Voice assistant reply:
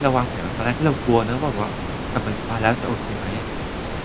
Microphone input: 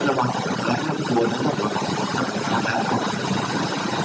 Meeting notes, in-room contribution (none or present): present